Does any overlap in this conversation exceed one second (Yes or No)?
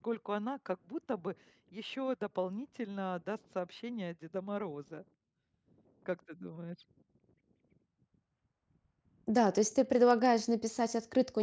No